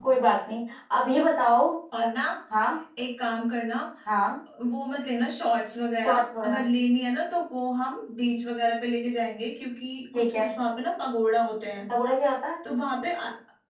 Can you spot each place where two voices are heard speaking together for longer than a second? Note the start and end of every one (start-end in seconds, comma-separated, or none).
none